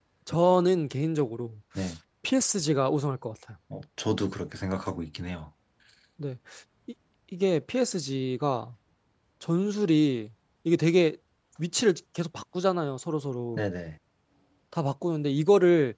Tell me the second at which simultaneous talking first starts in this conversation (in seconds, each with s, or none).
none